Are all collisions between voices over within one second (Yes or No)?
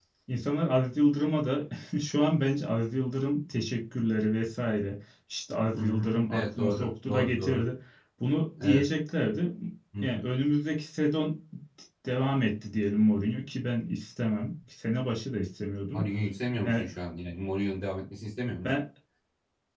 No